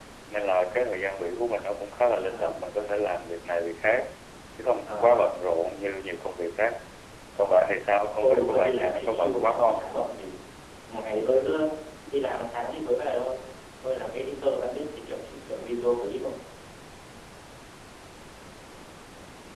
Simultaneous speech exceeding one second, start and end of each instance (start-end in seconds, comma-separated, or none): 8.2-9.9